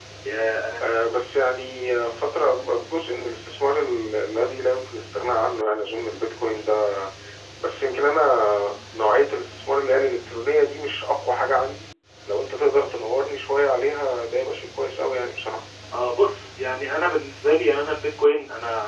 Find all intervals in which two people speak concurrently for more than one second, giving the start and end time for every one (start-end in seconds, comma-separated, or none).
none